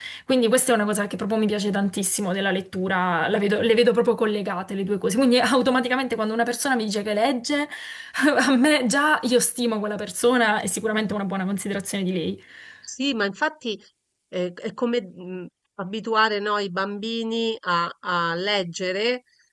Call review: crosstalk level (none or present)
none